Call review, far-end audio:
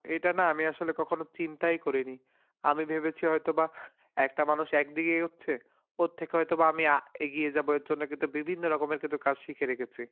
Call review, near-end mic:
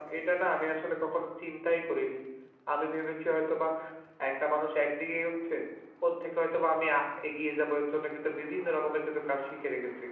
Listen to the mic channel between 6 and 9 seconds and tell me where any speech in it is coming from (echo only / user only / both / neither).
echo only